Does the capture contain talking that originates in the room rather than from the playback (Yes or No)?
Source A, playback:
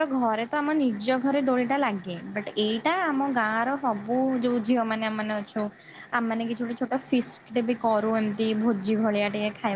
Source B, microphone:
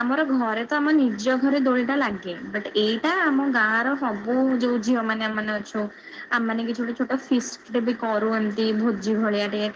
No